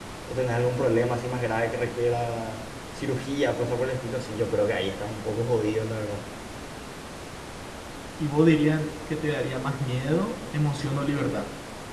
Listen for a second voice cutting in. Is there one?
No

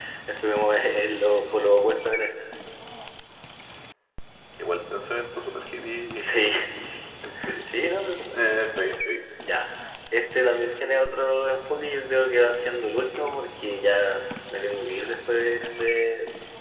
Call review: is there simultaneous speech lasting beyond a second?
No

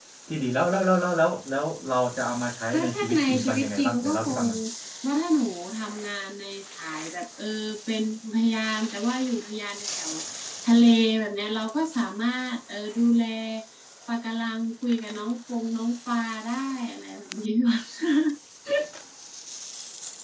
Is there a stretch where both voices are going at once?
Yes, from 2.7 s

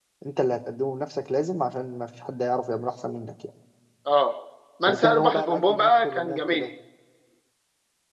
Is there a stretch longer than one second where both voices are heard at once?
Yes, from 4.9 s

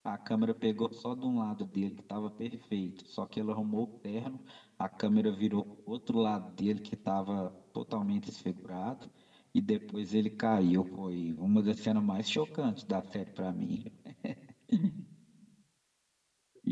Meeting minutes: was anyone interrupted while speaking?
No

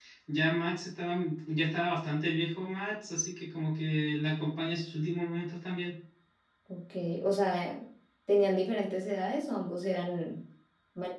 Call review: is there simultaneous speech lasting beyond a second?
No

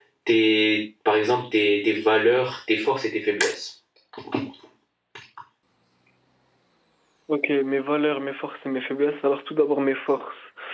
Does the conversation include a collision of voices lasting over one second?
No

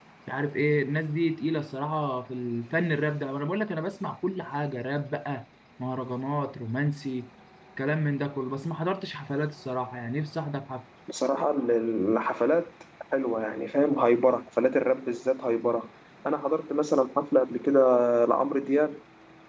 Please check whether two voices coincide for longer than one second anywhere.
No

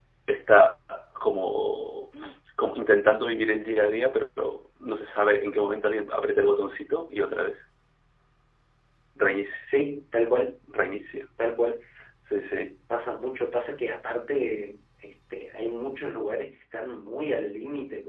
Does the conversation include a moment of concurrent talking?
No

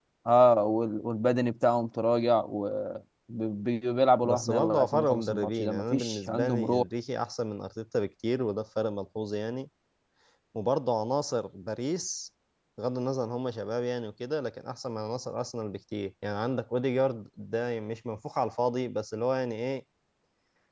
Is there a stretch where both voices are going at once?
Yes, from 4.2 s

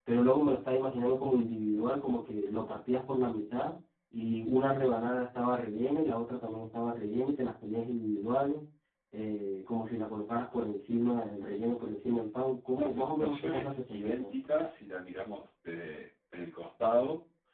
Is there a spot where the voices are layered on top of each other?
Yes, from 12.8 s

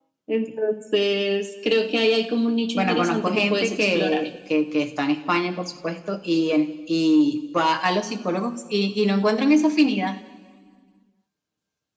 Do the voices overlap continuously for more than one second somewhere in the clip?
Yes, from 2.8 s

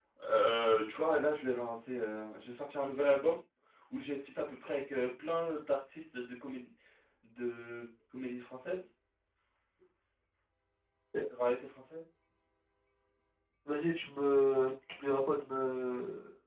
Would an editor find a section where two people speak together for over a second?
No

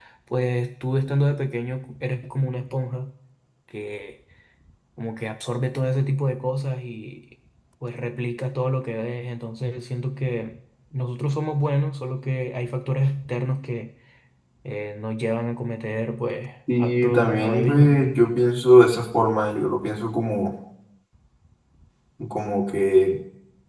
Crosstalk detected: Yes, from 16.7 s

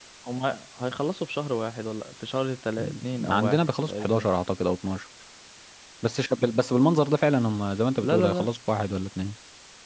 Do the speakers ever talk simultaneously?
Yes, from 2.8 s

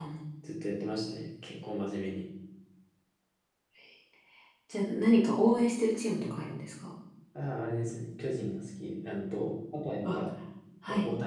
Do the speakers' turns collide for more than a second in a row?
No

